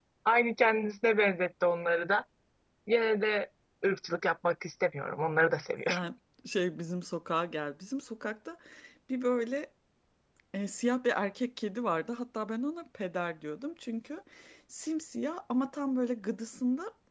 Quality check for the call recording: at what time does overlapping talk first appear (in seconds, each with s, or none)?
none